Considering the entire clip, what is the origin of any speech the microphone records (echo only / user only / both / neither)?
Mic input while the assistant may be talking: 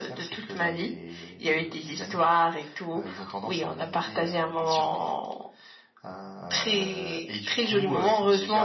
echo only